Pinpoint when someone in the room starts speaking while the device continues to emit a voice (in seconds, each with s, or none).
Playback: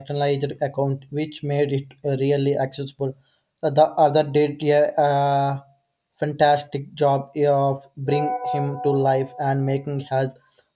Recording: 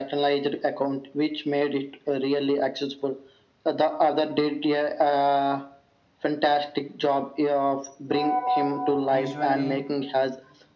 9.1 s